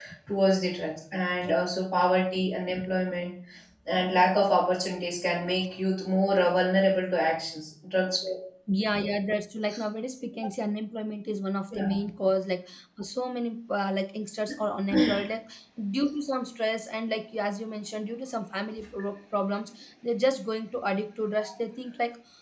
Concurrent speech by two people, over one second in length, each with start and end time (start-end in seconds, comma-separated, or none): none